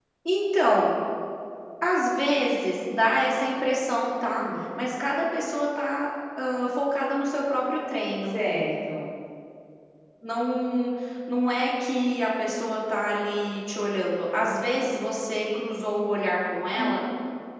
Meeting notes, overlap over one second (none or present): none